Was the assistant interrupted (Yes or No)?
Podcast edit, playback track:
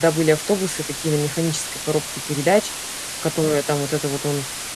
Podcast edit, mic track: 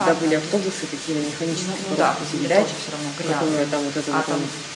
Yes